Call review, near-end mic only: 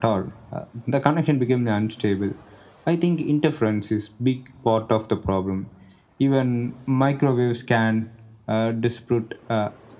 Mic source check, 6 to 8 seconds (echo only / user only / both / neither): echo only